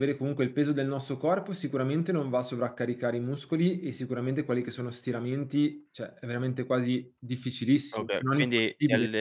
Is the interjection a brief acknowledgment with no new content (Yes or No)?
No